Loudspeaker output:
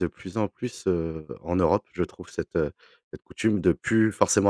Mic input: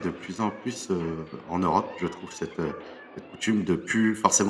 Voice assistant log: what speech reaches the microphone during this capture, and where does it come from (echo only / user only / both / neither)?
echo only